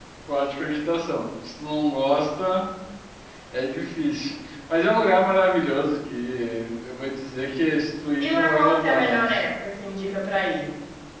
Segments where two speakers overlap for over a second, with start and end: 8.2-9.4

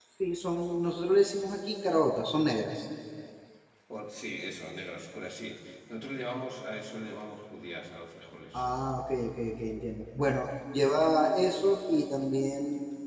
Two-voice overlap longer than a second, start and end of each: none

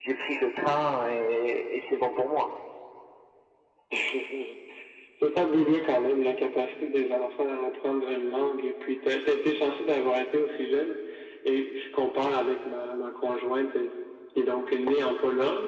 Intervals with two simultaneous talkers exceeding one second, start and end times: none

